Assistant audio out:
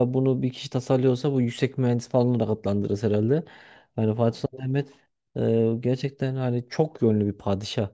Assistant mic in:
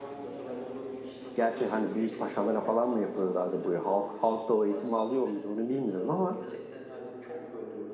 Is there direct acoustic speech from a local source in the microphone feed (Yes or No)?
Yes